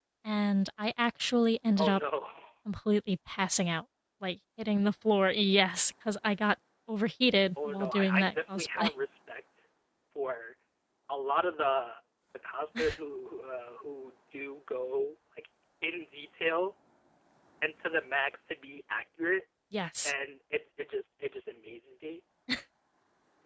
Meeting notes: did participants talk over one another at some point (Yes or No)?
Yes